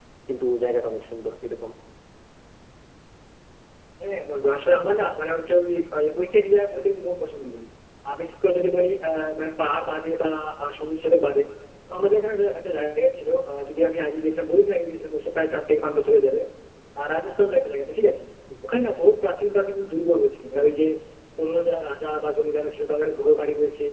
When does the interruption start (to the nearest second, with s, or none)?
none